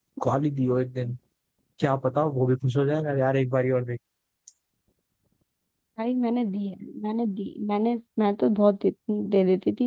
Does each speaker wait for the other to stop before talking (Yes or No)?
Yes